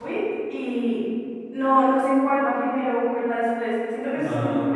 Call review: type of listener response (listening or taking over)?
taking over